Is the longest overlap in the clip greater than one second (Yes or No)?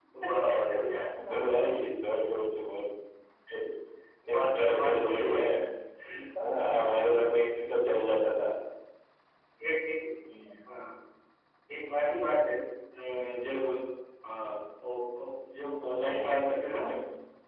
Yes